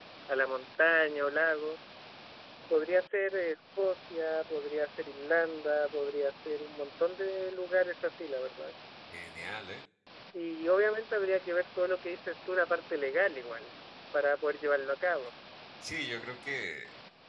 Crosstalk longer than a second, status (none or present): none